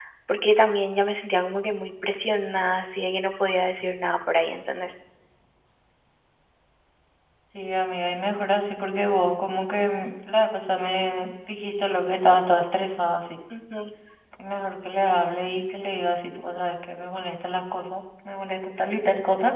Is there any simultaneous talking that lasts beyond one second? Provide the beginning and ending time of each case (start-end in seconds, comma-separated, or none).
none